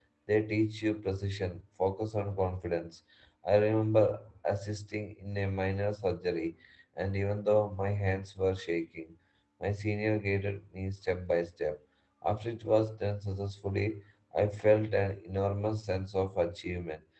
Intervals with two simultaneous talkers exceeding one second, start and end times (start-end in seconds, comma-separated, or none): none